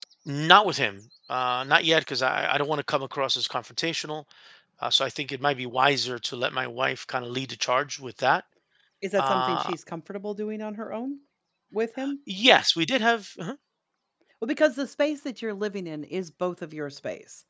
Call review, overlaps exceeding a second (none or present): none